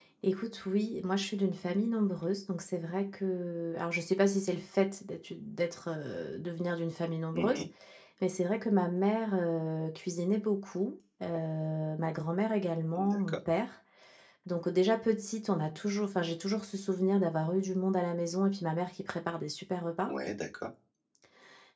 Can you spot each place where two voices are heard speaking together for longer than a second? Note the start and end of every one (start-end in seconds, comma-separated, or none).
none